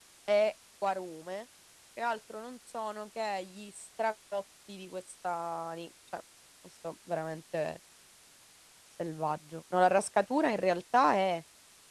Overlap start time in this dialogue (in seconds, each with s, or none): none